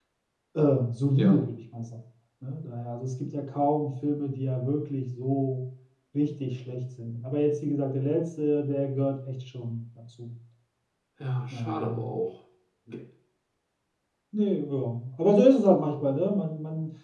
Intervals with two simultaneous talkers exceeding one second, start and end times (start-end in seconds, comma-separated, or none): none